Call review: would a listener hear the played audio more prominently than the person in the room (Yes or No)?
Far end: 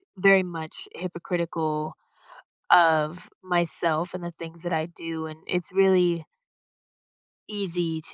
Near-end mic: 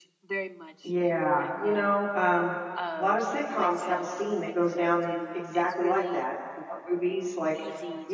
No